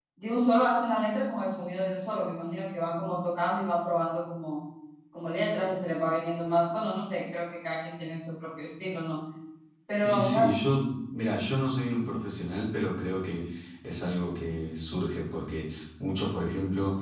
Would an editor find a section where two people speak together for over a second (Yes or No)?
No